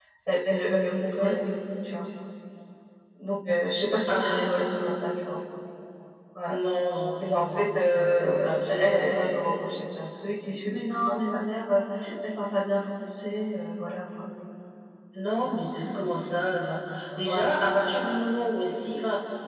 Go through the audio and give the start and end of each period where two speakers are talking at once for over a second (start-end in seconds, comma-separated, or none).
7.3-9.2